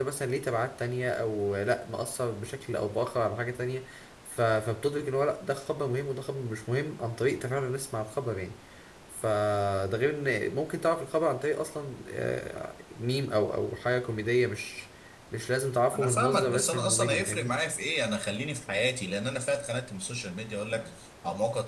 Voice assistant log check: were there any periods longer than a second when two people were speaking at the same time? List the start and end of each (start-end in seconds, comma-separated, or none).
15.9-17.5